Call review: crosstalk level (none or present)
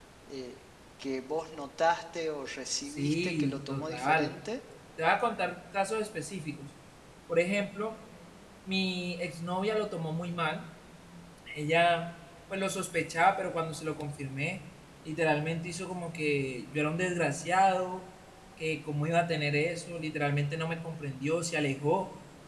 present